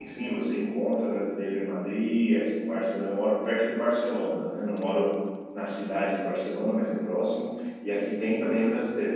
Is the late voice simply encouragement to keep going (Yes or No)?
Yes